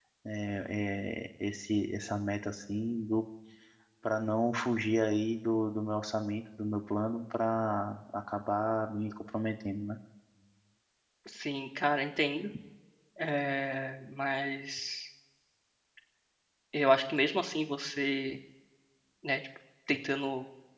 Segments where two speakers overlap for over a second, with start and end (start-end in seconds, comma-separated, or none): none